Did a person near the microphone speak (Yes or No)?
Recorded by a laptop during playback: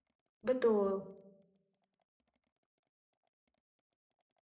Yes